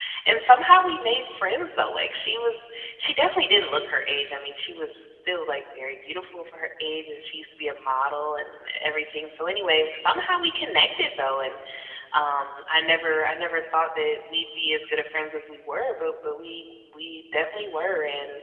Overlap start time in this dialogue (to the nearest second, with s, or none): none